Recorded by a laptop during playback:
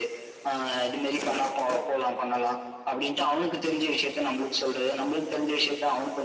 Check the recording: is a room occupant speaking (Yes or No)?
No